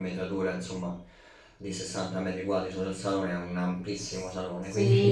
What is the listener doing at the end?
taking over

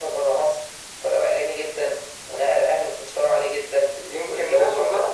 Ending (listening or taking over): taking over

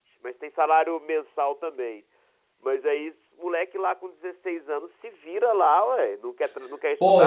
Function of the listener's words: taking over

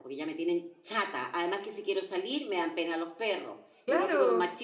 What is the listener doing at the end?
listening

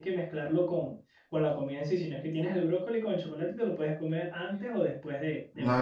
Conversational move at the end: taking over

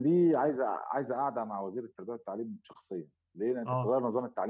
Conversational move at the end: listening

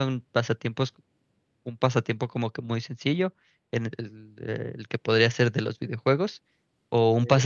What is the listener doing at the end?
listening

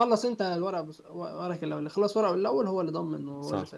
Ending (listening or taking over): taking over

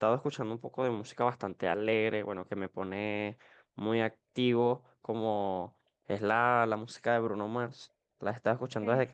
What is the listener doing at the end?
listening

